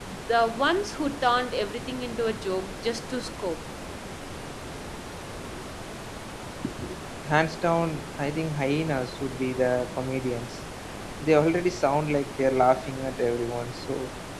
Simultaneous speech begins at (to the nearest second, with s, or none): none